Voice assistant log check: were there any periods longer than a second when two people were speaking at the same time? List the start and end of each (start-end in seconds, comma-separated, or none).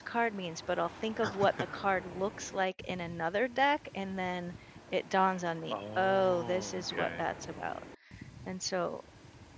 5.7-7.2